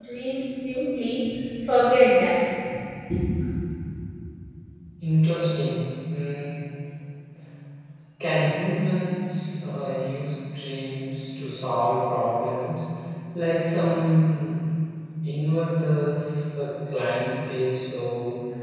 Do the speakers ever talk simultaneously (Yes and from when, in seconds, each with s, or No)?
No